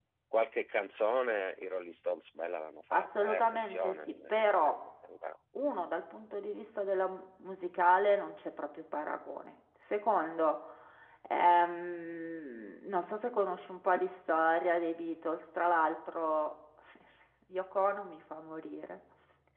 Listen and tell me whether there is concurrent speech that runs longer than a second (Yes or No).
Yes